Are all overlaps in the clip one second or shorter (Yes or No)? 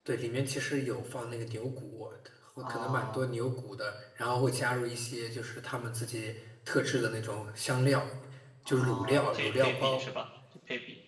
No